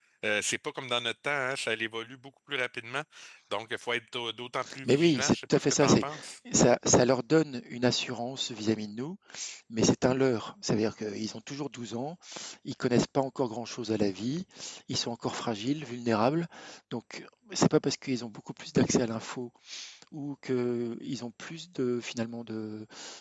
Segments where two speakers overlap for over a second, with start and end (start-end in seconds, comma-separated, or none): 4.8-6.0